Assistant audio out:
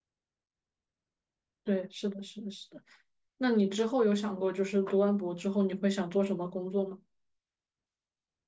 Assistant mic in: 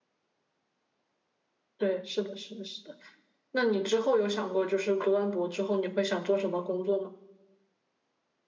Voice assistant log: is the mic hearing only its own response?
Yes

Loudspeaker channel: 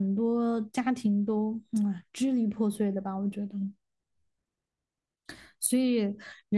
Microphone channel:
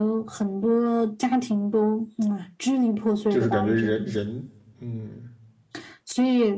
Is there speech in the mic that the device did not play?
Yes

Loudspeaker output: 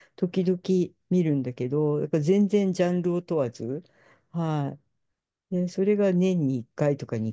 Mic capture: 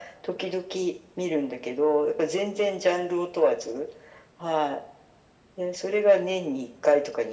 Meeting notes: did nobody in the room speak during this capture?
Yes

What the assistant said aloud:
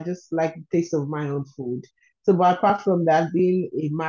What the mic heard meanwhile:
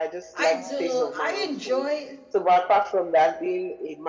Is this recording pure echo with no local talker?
No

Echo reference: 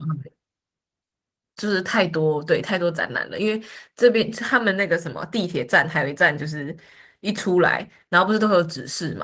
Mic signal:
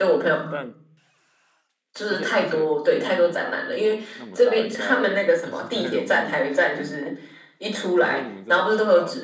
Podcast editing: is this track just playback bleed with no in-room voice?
No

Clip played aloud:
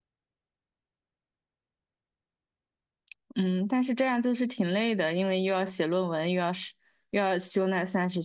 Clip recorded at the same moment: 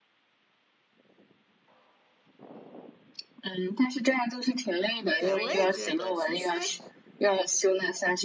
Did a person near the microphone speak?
Yes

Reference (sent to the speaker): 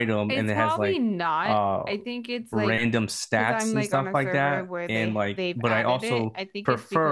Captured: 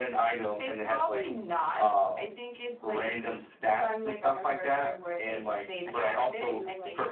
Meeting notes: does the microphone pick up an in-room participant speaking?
Yes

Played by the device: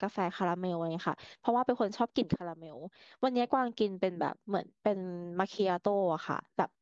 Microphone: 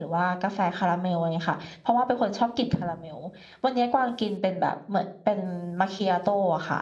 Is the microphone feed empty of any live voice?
Yes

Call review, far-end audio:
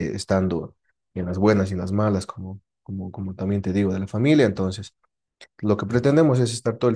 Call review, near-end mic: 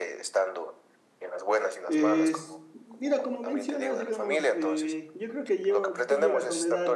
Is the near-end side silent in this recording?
No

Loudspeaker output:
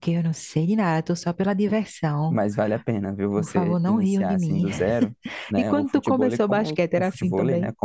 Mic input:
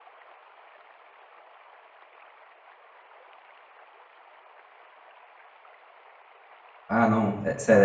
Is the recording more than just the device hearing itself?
Yes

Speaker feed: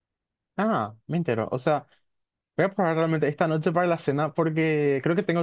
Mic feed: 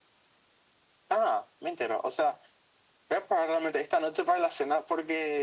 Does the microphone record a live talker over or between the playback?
No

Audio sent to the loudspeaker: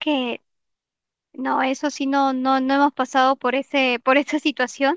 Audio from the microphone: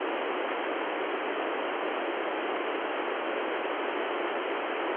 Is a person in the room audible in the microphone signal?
No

